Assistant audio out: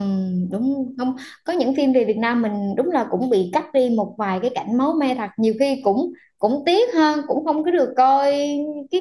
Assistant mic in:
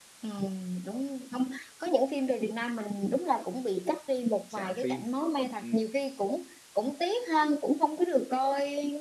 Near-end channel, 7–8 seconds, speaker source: echo only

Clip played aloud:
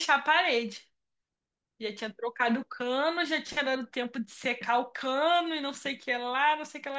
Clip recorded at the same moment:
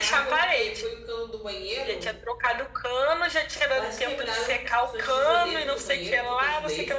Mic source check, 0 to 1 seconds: both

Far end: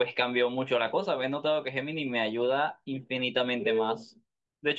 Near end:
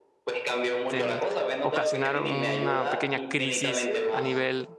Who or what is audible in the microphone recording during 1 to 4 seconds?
both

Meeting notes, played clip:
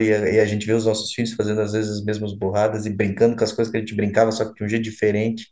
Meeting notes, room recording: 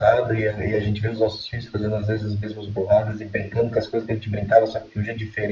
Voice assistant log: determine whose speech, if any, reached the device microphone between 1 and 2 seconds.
echo only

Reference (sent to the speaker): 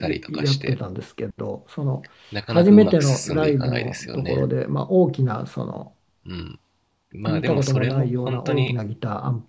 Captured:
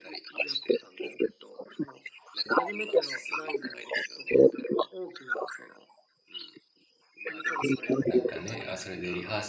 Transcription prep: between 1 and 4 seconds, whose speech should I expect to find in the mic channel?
echo only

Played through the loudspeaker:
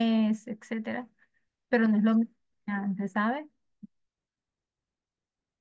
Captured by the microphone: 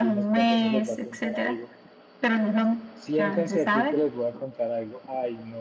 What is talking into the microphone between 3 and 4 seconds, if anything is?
both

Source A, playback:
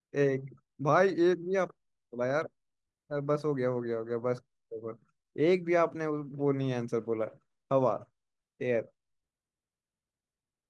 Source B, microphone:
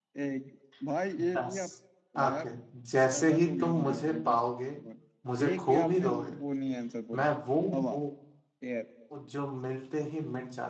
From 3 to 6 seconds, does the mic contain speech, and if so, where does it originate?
both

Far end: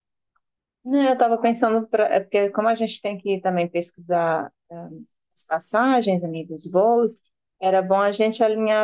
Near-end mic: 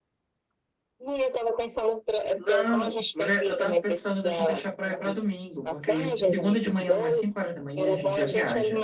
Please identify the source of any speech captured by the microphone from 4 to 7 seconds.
both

